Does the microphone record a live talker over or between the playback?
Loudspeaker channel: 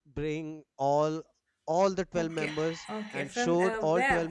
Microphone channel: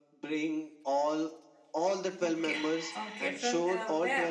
No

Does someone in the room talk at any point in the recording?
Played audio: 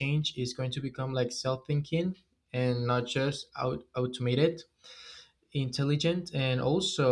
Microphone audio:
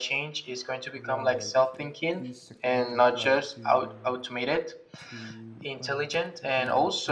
Yes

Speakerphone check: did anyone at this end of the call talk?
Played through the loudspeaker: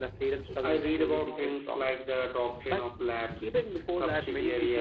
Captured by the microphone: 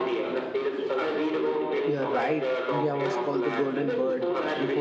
Yes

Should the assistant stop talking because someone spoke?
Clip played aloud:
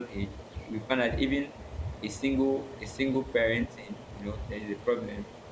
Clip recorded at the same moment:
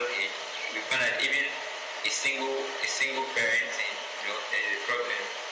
No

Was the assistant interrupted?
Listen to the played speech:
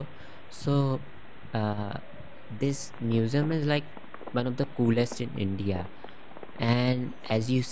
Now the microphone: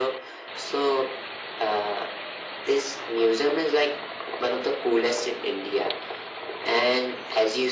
No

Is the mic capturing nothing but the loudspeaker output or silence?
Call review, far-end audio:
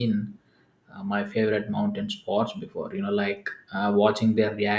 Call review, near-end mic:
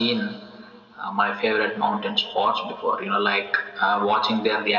Yes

